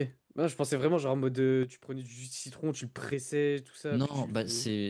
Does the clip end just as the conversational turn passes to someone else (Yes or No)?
Yes